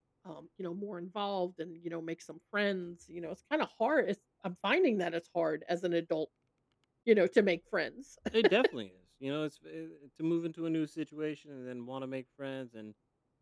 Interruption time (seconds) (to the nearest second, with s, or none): none